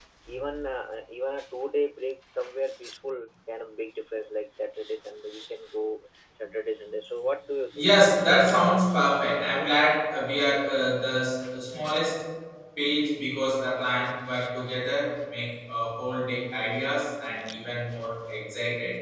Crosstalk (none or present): present